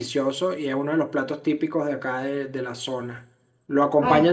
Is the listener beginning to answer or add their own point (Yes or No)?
No